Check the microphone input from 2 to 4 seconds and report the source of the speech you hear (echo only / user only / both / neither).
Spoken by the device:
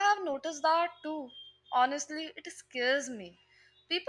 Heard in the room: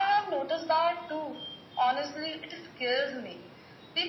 echo only